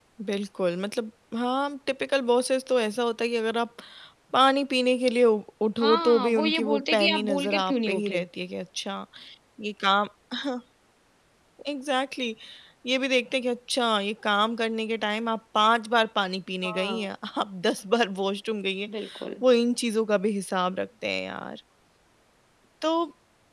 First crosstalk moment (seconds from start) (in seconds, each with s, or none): 5.8 s